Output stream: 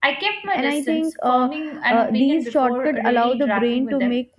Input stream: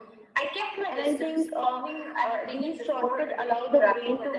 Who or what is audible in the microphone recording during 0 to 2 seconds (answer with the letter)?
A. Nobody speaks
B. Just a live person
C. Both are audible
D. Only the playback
D